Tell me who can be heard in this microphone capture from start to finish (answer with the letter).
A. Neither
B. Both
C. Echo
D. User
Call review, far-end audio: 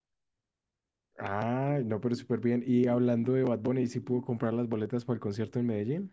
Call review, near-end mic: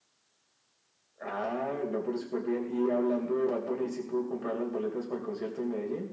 C